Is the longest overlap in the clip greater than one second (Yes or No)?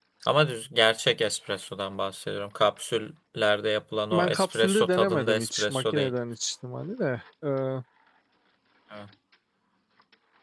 Yes